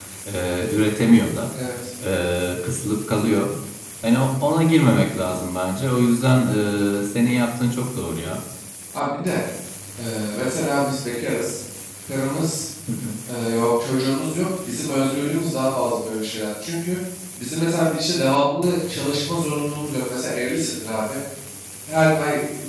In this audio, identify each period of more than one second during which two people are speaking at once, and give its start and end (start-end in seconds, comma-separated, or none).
none